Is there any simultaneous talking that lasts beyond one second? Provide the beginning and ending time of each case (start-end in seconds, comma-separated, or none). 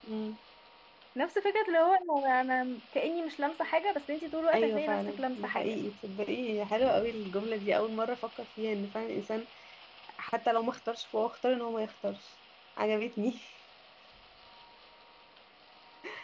4.5-5.8